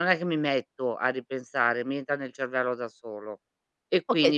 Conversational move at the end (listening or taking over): taking over